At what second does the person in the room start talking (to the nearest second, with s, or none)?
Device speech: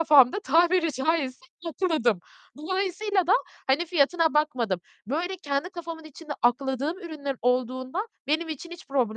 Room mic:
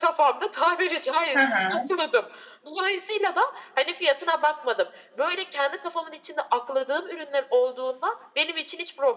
1 s